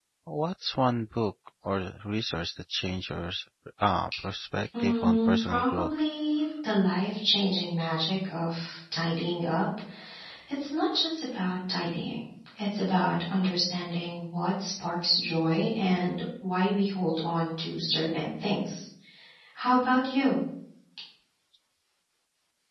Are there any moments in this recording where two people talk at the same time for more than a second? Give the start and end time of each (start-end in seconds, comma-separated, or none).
4.8-6.0